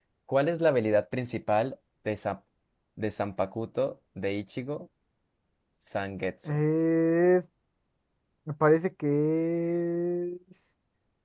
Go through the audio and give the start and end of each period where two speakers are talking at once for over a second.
none

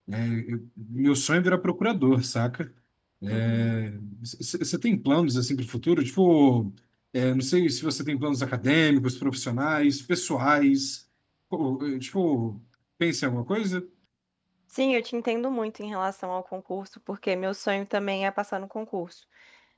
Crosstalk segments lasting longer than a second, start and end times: none

